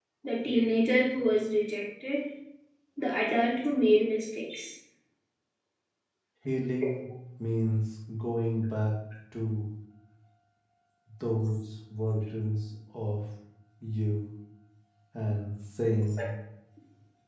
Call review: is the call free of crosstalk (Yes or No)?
Yes